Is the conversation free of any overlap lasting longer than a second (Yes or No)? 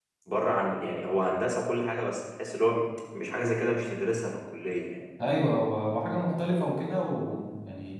Yes